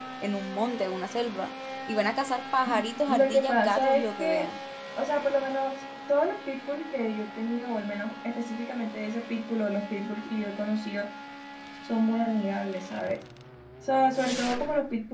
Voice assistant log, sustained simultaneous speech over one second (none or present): present